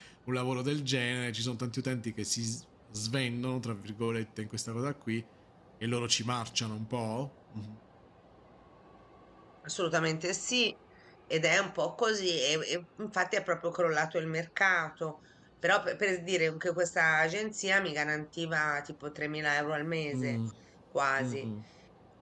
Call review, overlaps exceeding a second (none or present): none